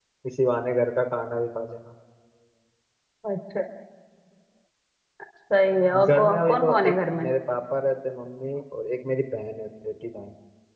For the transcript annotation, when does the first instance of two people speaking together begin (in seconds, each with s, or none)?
6.1 s